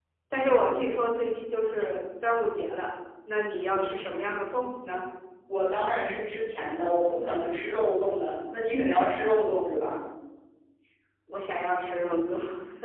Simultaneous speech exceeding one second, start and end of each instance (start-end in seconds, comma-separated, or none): none